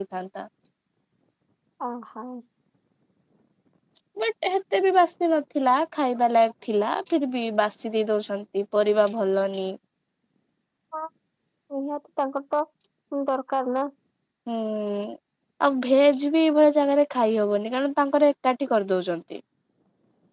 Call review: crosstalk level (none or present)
none